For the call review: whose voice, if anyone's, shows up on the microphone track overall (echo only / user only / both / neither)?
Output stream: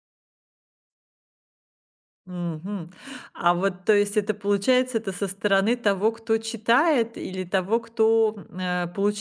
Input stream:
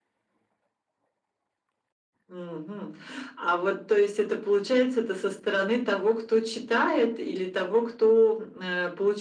echo only